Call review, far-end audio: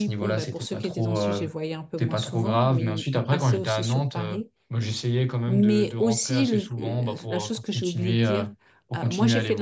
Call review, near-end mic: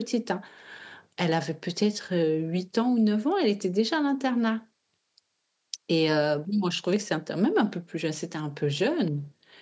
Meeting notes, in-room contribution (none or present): present